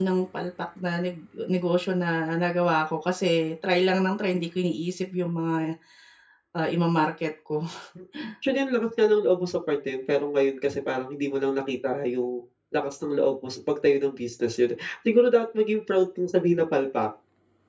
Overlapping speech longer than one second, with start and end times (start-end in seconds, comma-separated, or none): none